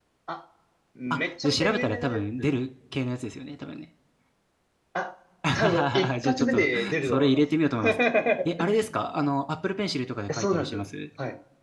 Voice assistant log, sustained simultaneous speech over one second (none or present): present